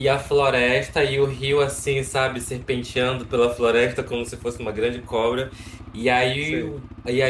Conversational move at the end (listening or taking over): listening